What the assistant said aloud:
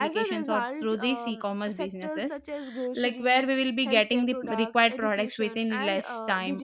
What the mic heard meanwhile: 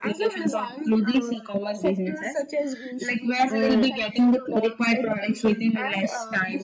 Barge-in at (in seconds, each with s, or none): 3.5 s